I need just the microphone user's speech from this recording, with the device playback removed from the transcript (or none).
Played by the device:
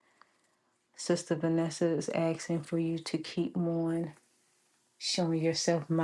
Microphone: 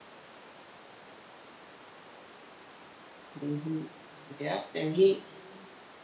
hmm Yeah, and he